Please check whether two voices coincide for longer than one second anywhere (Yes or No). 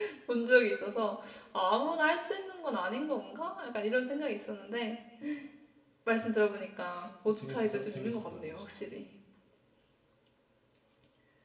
Yes